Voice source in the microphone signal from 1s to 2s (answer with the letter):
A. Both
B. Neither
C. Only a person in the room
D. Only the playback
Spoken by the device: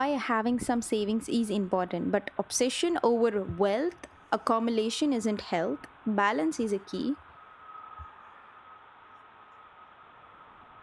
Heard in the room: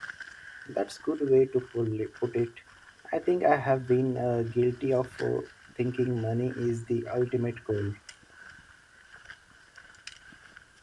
C